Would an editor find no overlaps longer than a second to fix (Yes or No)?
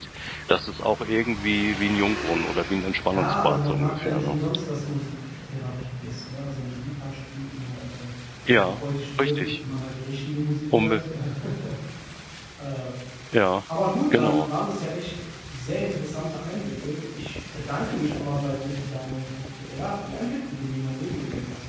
No